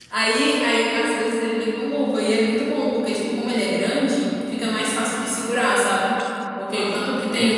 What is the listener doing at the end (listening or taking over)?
listening